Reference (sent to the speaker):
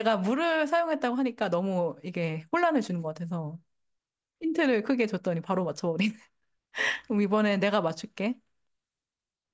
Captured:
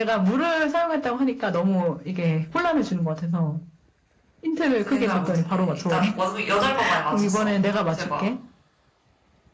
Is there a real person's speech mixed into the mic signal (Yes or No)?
Yes